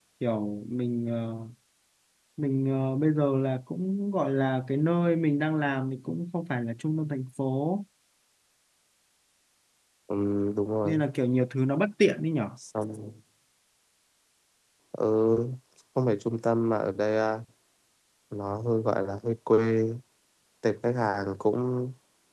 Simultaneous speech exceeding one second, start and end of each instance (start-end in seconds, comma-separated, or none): none